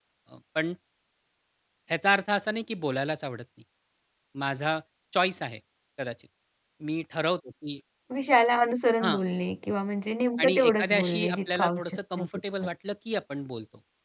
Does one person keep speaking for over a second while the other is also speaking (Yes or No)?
Yes